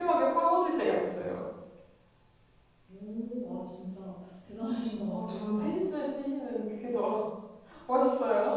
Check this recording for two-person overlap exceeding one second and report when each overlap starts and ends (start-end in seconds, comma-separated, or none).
none